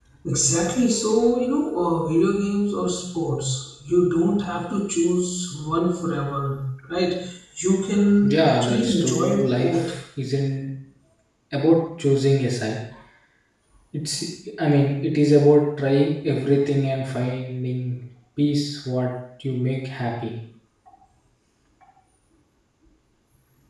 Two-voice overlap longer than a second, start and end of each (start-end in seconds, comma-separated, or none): 8.2-9.9